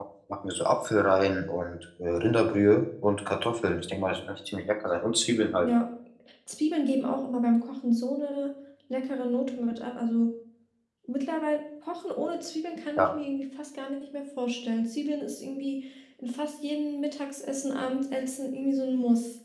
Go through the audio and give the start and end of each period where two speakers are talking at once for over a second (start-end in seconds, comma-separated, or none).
none